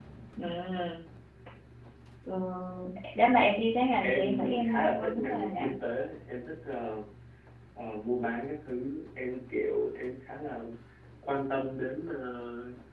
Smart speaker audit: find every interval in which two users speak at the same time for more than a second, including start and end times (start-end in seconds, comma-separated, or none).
4.0-5.7